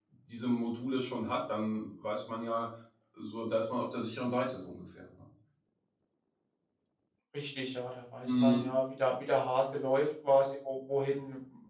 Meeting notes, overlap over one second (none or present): none